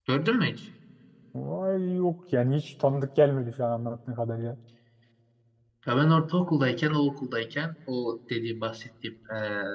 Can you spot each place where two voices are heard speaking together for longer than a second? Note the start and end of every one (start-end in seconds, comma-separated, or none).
none